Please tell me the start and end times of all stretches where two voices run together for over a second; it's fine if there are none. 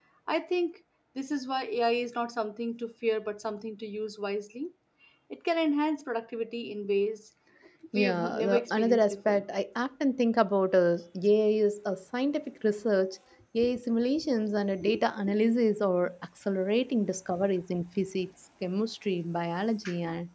7.9-9.4

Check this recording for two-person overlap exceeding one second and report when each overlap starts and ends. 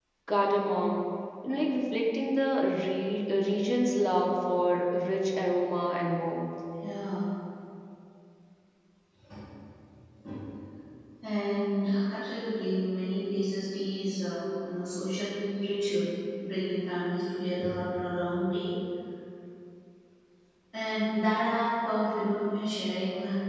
none

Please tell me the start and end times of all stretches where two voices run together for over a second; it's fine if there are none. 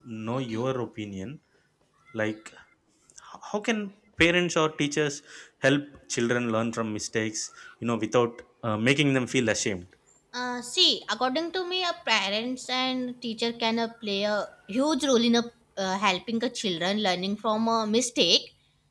none

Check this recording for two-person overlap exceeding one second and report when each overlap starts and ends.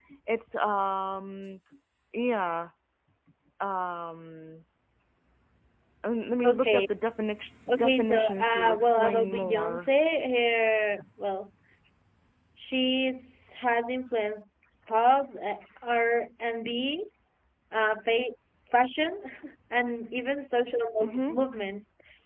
7.7-9.9

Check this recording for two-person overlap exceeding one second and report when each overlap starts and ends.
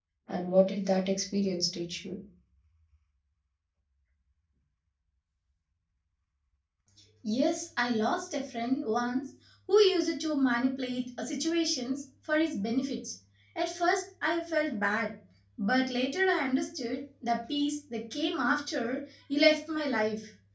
none

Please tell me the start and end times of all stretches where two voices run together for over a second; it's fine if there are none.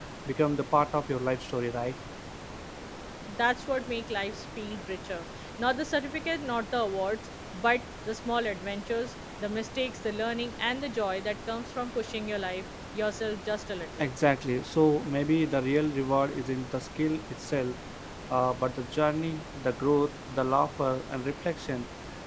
none

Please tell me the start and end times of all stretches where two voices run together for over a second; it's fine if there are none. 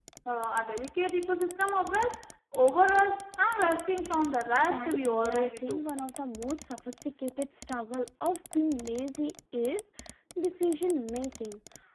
4.6-5.8

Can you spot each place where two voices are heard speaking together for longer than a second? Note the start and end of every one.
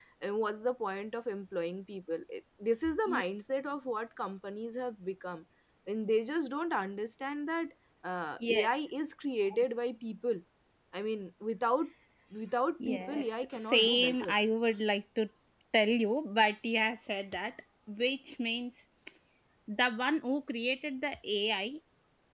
12.9-14.3

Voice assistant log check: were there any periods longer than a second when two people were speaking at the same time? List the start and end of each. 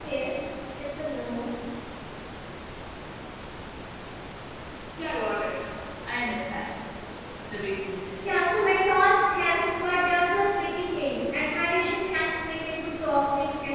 none

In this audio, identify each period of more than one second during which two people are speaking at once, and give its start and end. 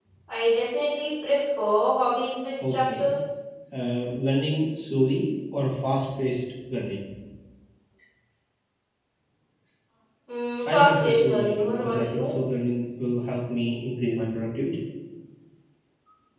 10.7-12.3

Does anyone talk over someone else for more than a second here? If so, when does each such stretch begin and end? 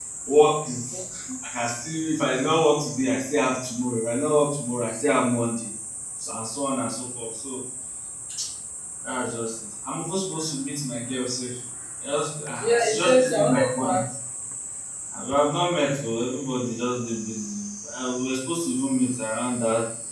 12.6-14.0

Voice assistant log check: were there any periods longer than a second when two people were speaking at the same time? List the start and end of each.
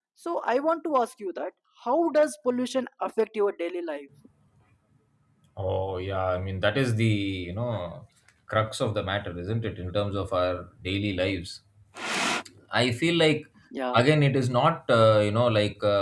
none

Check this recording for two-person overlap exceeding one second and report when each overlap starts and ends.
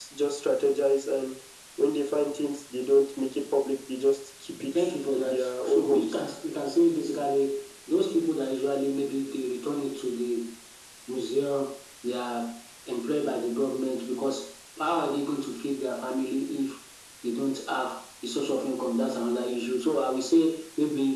4.8-6.2

